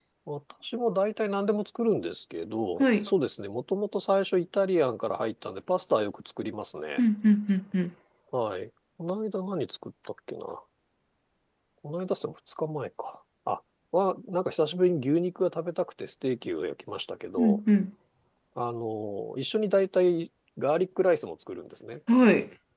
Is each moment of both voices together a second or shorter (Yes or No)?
Yes